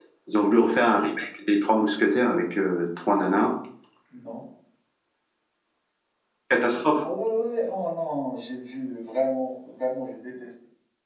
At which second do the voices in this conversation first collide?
none

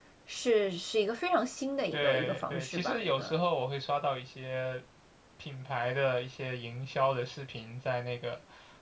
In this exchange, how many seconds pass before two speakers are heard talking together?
1.9 s

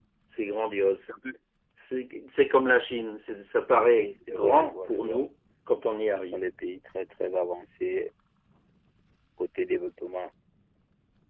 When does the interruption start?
3.8 s

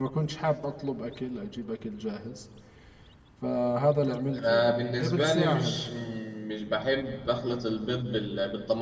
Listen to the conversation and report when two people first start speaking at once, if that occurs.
4.3 s

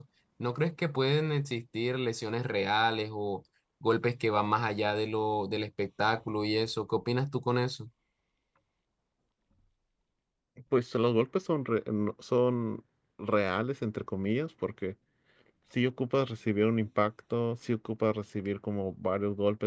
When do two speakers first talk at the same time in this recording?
none

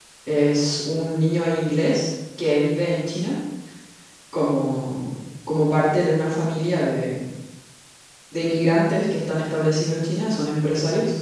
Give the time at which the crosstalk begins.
none

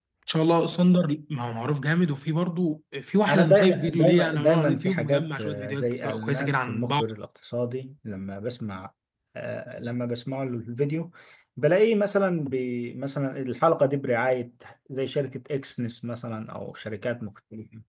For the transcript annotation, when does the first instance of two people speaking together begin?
3.3 s

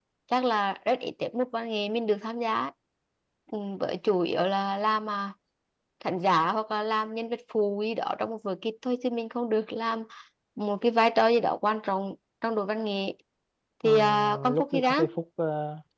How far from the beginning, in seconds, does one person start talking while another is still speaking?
13.8 s

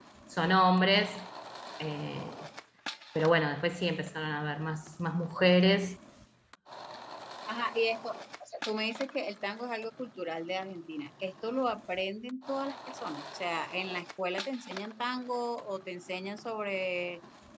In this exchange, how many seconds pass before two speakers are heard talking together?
none

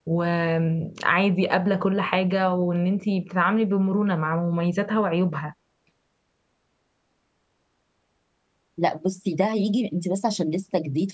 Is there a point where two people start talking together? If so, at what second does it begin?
none

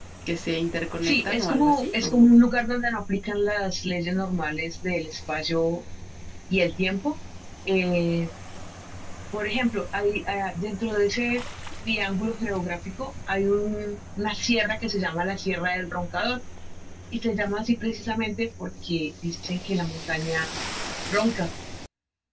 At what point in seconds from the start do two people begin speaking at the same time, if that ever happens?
1.0 s

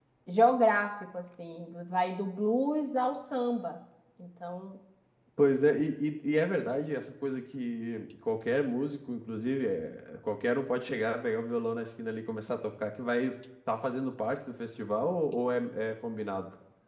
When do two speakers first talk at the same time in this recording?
none

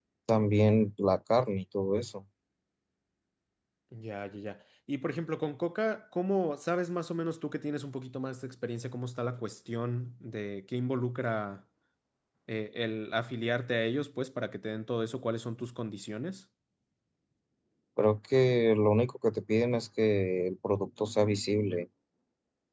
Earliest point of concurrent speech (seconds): none

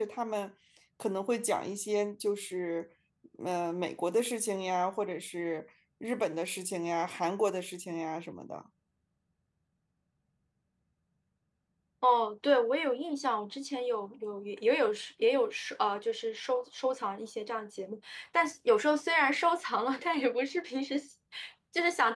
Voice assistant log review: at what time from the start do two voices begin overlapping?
none

